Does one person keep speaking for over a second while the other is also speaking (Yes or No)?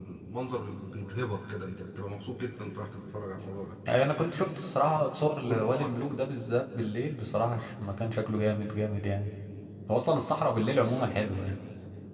No